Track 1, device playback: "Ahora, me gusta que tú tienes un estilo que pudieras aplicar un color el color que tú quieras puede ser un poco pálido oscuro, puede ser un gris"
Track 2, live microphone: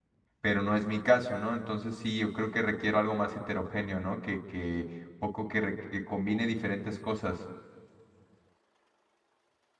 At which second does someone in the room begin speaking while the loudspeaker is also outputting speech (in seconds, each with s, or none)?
0.4 s